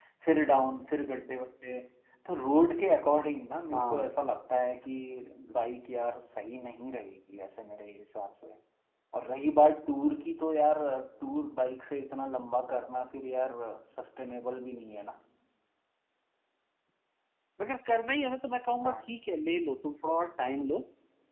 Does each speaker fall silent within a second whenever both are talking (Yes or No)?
Yes